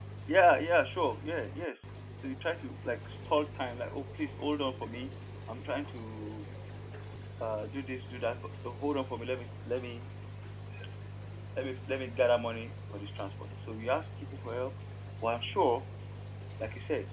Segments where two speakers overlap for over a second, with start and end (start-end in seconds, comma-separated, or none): none